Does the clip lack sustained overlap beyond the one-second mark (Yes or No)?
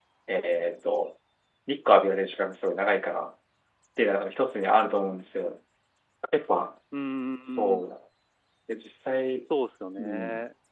Yes